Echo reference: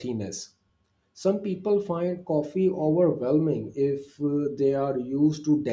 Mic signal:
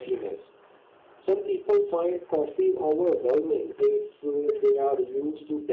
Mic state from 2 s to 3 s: echo only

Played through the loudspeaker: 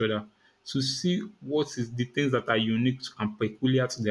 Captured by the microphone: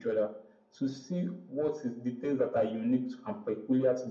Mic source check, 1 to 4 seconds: echo only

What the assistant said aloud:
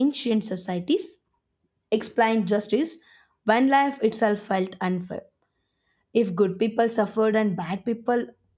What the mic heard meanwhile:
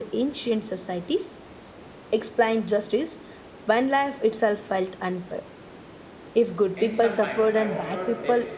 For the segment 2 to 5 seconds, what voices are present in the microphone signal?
echo only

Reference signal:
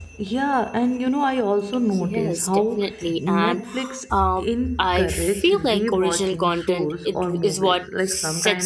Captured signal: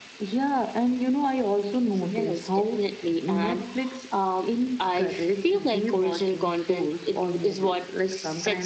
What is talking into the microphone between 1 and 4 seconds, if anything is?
echo only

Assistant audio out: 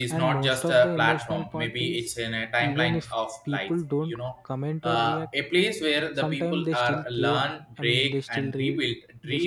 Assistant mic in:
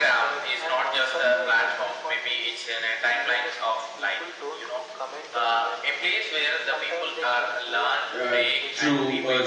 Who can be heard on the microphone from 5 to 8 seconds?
echo only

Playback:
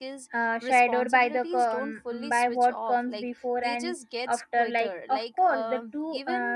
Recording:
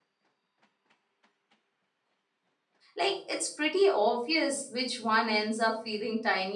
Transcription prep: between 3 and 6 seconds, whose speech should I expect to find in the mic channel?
user only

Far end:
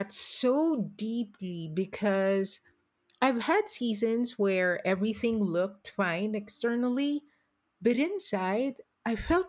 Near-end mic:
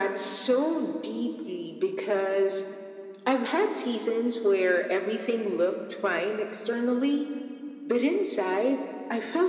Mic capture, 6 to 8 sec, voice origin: echo only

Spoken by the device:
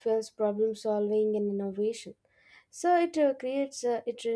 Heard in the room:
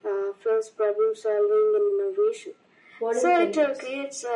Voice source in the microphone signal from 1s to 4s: both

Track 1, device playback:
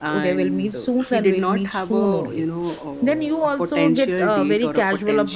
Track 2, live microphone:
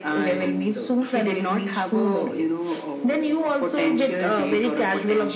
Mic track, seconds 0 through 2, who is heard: echo only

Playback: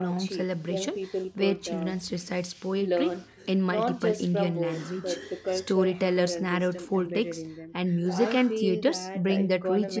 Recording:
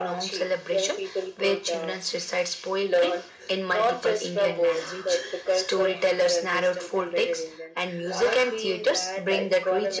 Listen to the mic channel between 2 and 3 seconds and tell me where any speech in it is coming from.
echo only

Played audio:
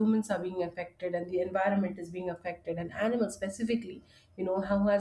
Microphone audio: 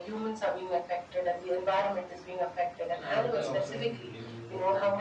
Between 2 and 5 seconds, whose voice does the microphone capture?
both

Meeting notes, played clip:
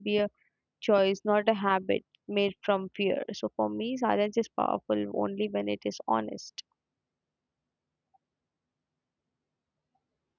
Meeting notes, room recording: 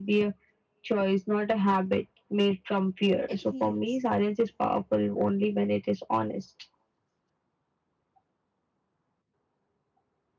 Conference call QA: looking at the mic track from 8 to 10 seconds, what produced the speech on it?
neither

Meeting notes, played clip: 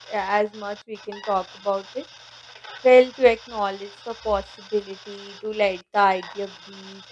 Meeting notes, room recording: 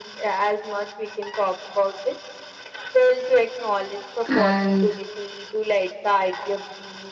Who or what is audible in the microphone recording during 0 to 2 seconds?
echo only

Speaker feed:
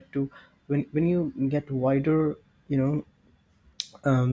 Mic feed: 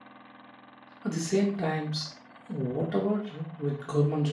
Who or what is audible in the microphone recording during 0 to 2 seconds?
user only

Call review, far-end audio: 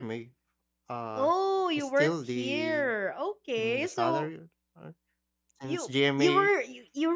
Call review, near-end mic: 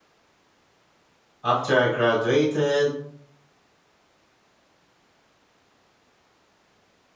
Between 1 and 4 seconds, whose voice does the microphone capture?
user only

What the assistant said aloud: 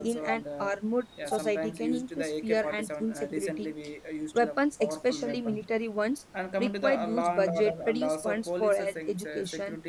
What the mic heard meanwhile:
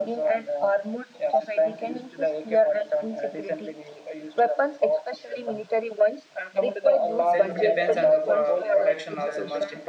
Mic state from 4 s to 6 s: echo only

